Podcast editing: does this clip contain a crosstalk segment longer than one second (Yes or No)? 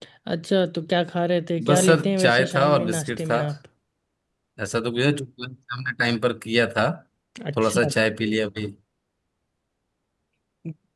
Yes